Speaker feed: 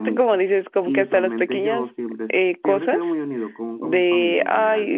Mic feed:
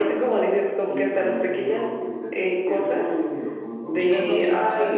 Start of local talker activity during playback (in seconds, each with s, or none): 3.9 s